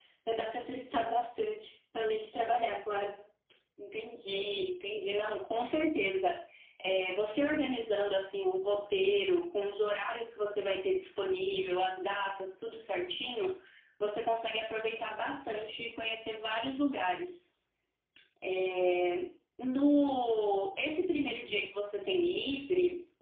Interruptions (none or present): none